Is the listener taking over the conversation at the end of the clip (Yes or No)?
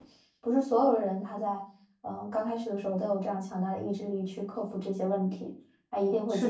Yes